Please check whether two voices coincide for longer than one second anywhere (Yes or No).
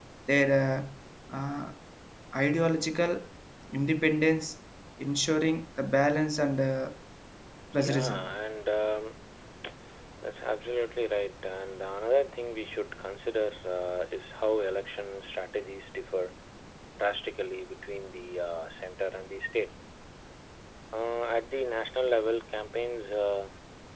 No